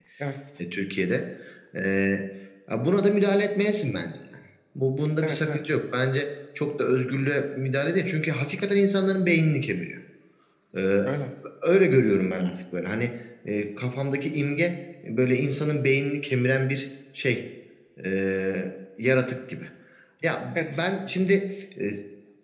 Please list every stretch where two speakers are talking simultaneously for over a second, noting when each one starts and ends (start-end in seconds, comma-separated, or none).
none